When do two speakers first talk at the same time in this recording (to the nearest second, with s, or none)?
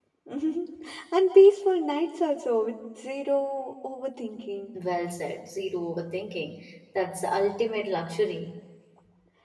none